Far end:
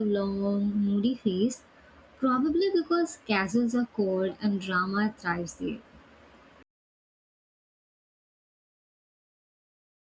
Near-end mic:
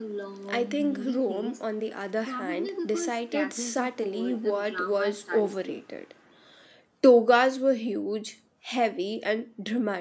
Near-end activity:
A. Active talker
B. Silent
A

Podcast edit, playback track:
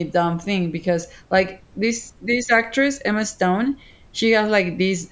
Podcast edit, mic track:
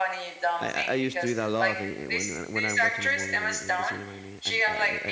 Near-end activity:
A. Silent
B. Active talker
B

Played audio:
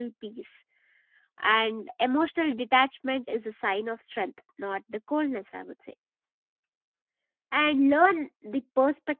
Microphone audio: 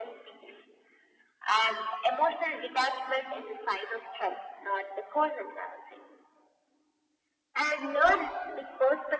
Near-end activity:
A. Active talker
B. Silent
B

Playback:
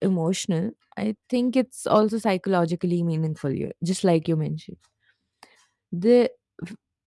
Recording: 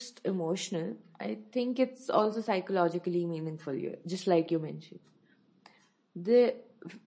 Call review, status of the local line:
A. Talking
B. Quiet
B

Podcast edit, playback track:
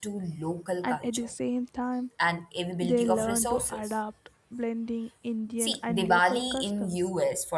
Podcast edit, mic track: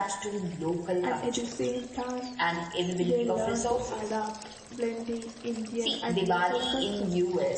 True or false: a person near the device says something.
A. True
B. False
B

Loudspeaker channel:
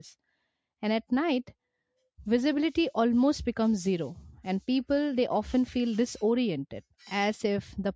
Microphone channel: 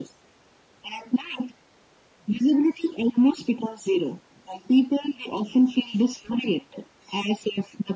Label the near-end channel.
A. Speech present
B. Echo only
B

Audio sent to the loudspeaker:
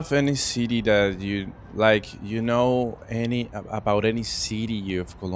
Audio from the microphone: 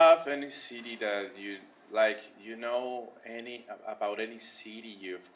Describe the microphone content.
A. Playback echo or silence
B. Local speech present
A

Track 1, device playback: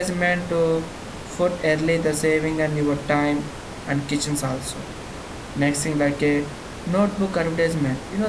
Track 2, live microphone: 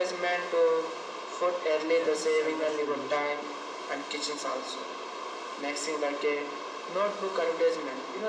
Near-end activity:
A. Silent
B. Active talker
B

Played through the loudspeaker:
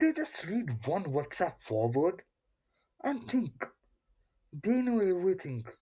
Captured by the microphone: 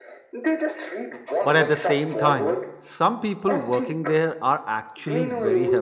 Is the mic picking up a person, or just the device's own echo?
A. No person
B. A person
B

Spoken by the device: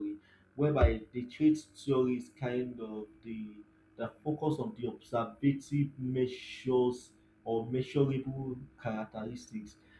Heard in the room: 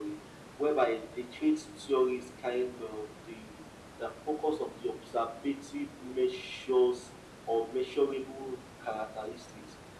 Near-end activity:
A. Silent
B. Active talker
A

